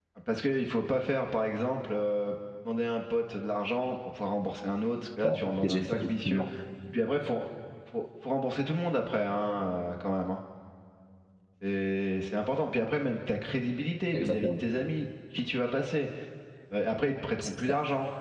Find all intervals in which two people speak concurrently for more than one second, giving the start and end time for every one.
5.2-6.4

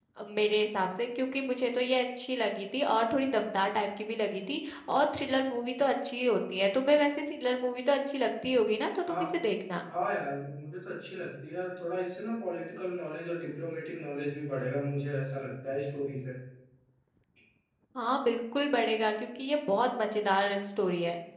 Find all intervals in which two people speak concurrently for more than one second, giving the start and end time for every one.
none

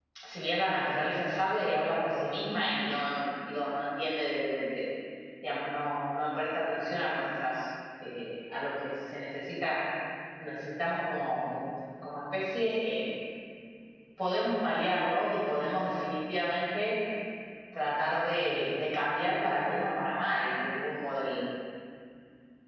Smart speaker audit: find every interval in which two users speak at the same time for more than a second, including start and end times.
none

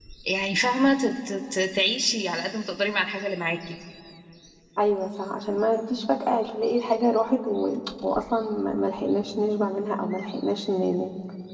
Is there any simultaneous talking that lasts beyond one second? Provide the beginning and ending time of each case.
none

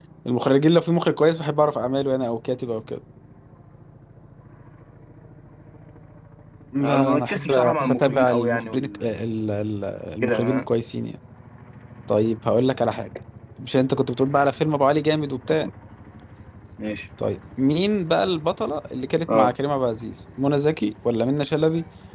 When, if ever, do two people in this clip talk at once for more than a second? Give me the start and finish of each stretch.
6.8-9.1

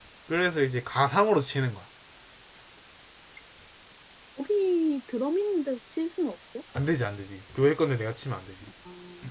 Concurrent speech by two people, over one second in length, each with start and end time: none

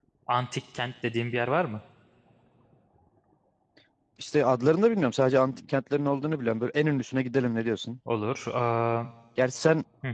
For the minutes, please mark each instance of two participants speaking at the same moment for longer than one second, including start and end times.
none

